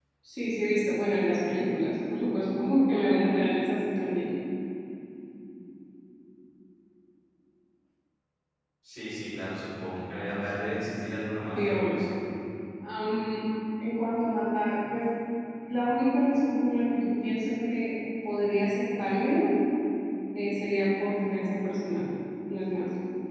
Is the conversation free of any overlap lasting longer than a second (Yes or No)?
Yes